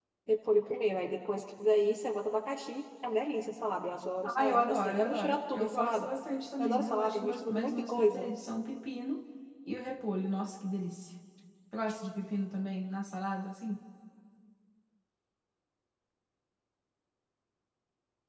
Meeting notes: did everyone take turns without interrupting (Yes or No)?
No